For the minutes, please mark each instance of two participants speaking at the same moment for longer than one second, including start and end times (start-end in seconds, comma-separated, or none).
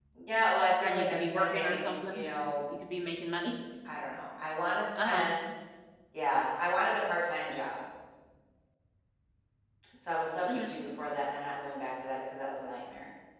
0.8-2.2